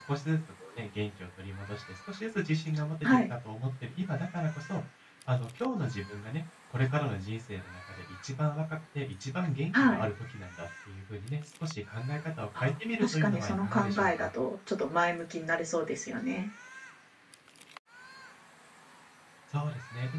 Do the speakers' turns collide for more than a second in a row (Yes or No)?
Yes